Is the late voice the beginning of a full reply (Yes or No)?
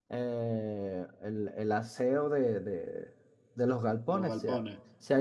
No